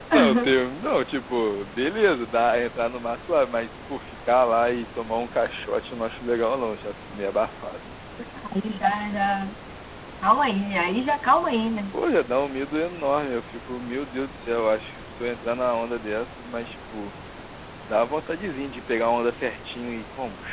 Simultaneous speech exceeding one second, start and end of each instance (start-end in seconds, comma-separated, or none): none